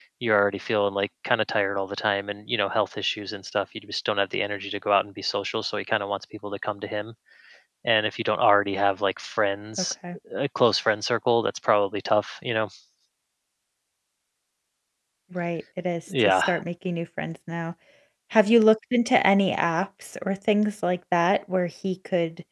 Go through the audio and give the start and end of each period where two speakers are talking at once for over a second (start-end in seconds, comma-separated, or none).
none